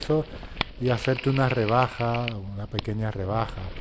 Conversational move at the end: taking over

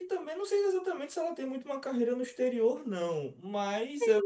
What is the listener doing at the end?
listening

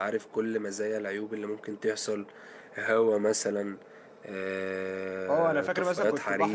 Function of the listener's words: taking over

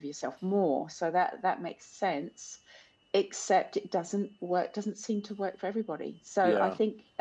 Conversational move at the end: listening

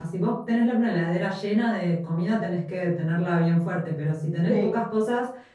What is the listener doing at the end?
listening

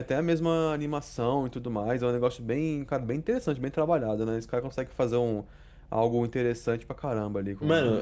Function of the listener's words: taking over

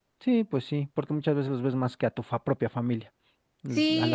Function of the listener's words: taking over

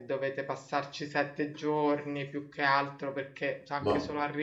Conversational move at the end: listening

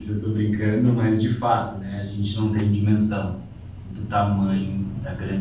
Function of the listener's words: listening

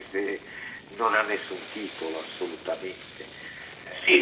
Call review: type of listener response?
taking over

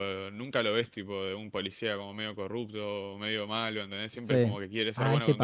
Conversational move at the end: taking over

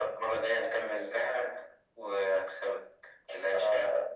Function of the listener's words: taking over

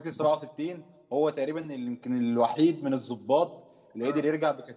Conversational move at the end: listening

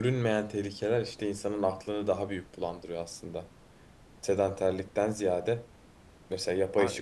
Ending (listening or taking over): listening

